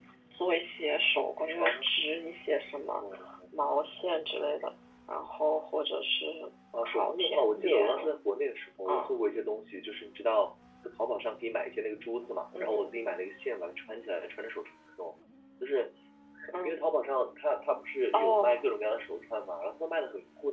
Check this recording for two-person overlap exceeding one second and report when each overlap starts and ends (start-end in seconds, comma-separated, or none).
6.8-8.1